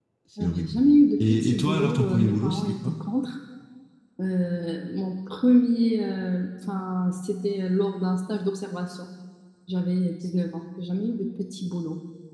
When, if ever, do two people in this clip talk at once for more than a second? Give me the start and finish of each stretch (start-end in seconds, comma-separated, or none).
1.2-2.9